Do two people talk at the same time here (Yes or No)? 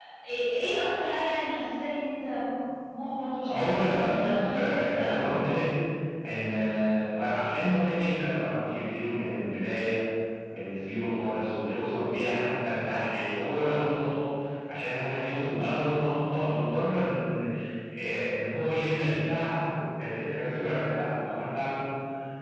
Yes